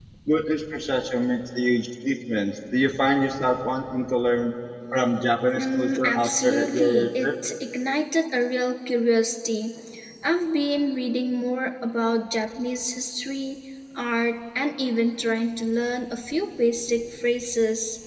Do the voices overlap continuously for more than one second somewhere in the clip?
Yes, from 5.5 s

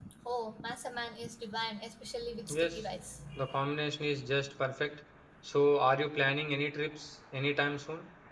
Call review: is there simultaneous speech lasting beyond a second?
No

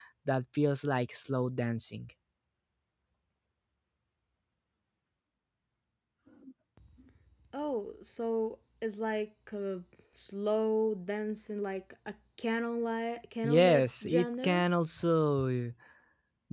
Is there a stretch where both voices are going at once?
Yes, from 13.4 s

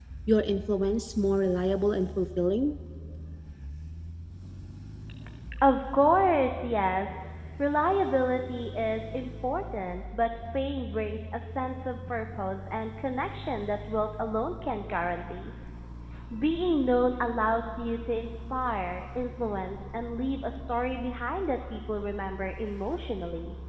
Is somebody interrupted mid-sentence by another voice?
No

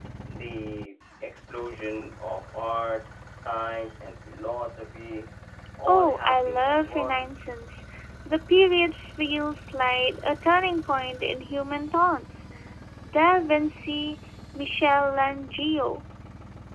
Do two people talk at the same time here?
Yes, from 5.9 s

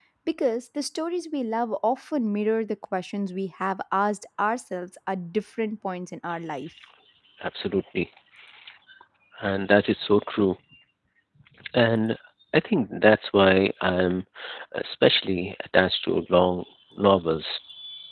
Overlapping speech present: No

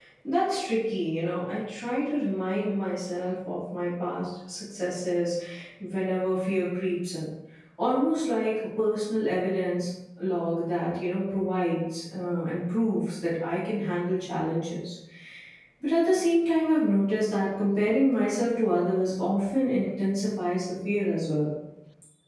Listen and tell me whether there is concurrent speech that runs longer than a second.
No

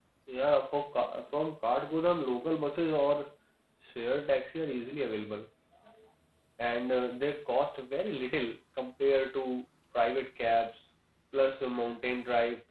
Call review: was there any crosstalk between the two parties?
No

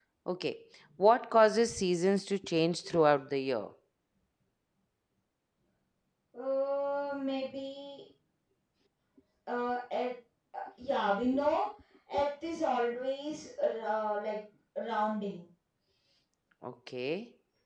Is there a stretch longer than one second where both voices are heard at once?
No

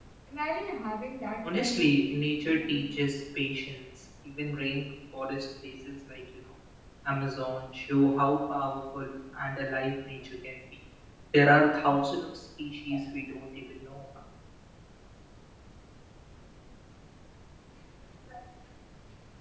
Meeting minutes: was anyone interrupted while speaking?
Yes, from 1.4 s

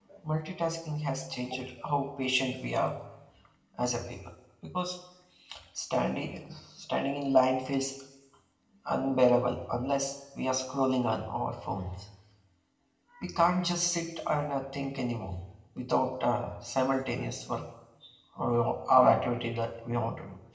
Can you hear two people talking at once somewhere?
No

